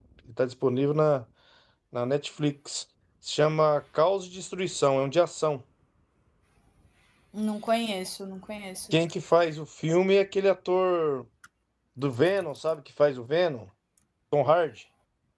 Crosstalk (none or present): none